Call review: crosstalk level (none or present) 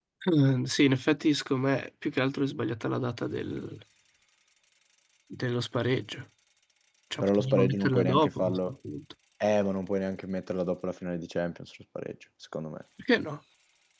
present